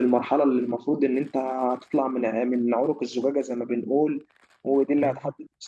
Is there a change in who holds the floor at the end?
No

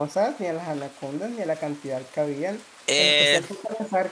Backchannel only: Yes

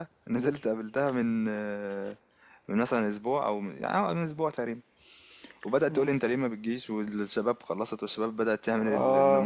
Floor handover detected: No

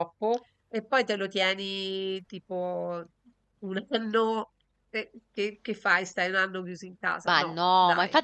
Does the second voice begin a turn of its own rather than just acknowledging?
Yes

